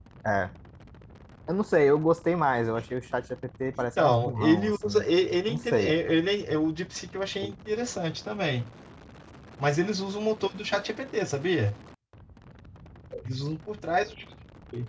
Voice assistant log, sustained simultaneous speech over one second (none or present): present